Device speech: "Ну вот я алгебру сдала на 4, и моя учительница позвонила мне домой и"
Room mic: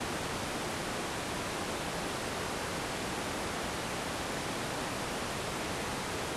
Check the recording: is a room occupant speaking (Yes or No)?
No